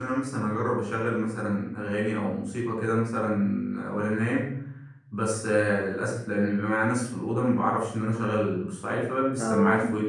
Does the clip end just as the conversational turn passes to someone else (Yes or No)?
No